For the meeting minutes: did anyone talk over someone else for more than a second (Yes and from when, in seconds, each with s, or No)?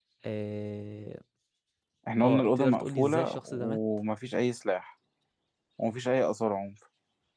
Yes, from 2.2 s